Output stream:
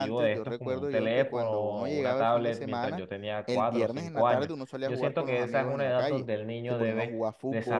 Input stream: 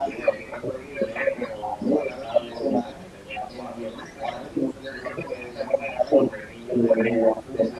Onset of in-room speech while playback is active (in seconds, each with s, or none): none